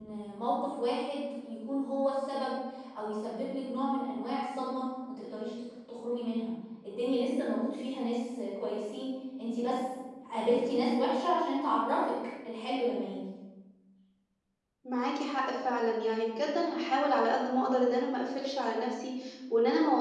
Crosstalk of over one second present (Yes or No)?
No